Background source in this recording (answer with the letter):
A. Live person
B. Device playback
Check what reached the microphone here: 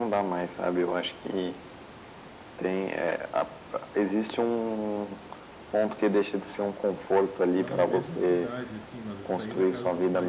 A